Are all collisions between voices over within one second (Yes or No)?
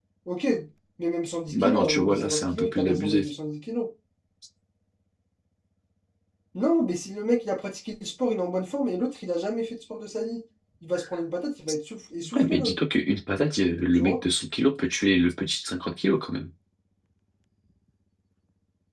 No